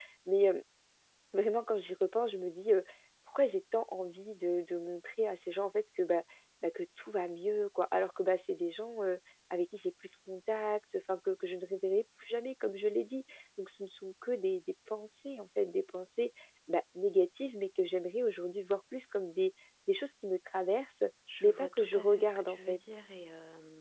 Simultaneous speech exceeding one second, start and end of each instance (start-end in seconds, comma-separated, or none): 21.4-22.8